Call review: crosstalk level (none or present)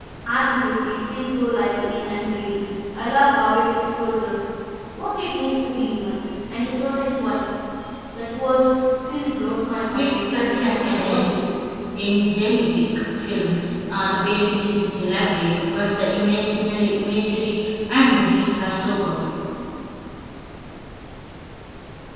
present